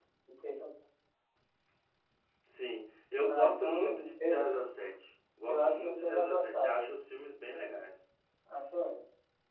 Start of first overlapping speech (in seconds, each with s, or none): 3.2 s